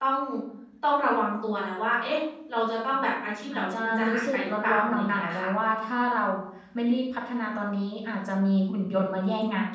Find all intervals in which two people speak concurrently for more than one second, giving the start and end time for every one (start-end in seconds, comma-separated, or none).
3.5-5.5